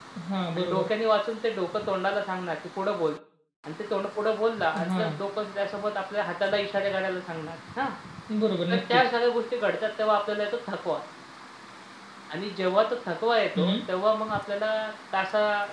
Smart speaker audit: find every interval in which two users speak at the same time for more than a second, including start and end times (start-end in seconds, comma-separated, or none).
none